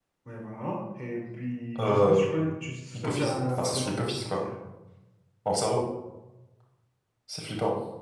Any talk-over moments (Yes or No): Yes